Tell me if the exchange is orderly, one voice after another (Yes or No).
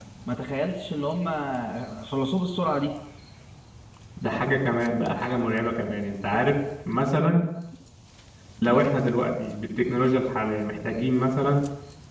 Yes